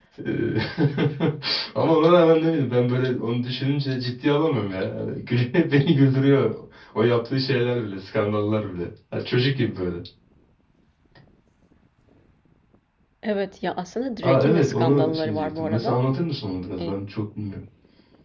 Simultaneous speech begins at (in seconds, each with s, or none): 14.2 s